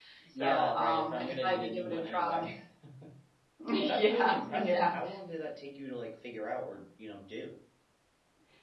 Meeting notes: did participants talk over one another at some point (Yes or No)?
Yes